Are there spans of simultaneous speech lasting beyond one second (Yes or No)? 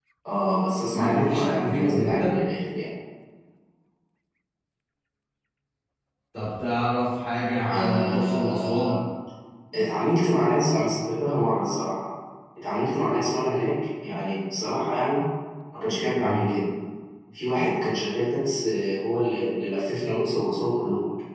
Yes